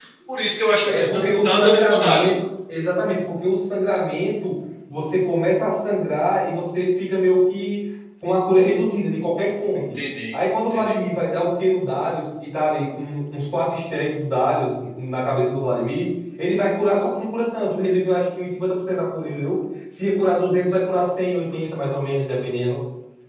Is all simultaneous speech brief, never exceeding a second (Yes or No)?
No